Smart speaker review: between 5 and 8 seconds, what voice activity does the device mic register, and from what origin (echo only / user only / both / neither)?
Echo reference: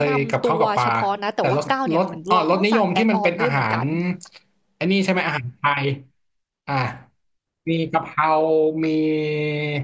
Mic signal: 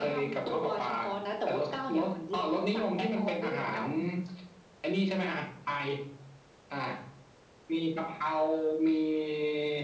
echo only